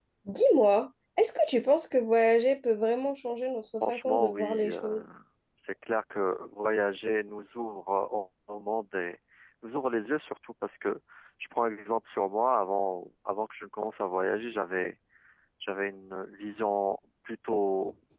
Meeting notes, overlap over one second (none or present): present